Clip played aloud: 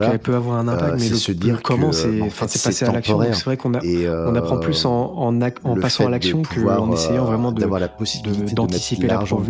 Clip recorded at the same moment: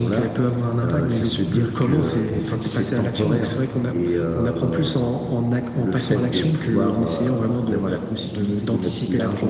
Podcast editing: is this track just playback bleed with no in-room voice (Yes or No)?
Yes